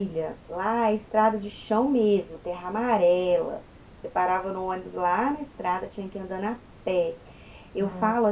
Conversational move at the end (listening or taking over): listening